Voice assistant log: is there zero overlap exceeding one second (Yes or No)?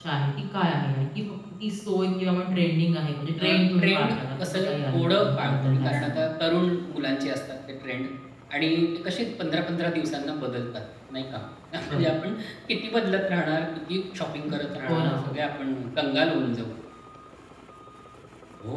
No